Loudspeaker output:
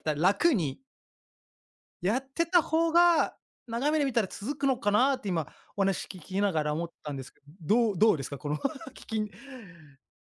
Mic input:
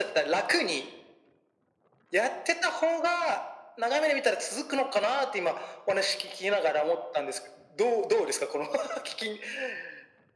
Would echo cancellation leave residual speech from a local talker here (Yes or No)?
No